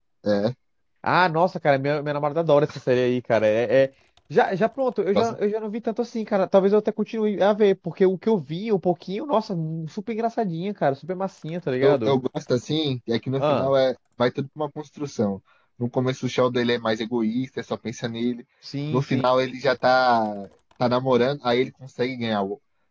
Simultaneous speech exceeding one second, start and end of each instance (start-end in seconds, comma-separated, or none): none